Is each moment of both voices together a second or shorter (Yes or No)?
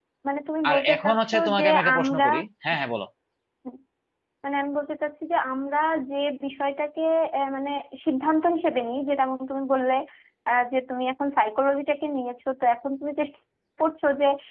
No